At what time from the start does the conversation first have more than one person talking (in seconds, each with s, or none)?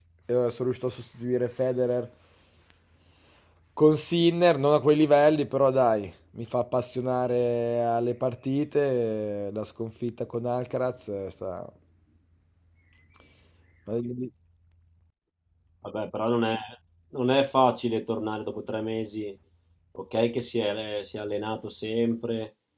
none